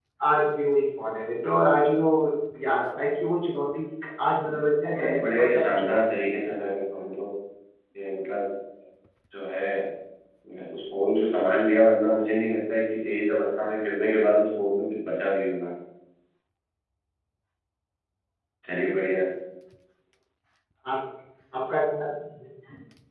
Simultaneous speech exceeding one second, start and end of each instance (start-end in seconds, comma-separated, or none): 4.8-6.3